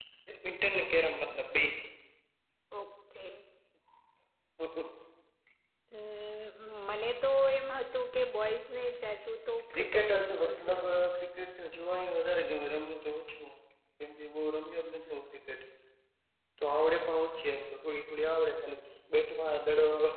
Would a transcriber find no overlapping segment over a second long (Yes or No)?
No